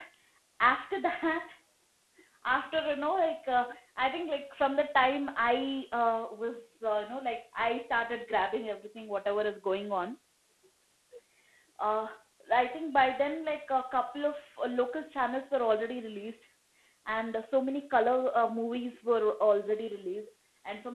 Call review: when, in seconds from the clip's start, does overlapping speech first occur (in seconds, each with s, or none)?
none